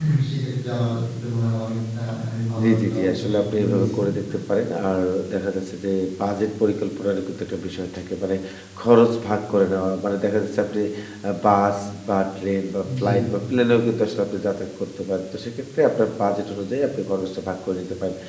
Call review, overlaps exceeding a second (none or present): present